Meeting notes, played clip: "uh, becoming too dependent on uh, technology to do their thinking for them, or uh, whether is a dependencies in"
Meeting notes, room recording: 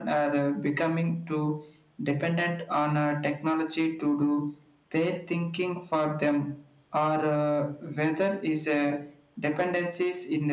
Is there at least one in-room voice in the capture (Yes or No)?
No